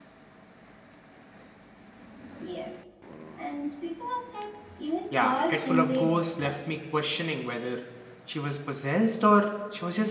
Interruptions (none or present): present